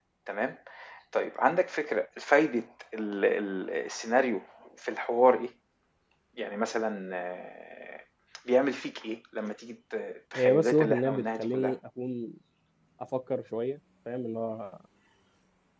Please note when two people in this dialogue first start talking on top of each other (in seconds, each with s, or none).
10.3 s